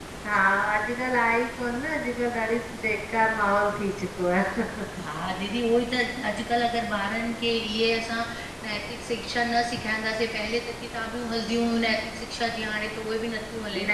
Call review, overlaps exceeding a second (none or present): none